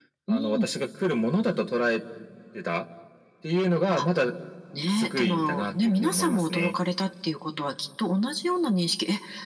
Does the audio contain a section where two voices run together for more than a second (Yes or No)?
Yes